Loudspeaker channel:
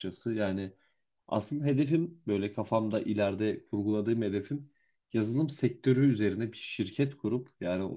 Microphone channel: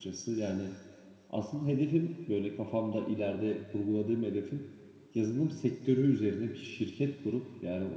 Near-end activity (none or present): none